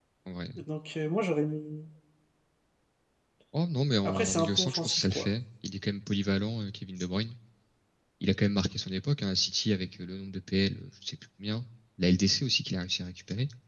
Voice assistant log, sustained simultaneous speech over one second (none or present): present